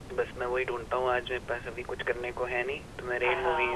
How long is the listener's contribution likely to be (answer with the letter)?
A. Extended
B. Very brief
A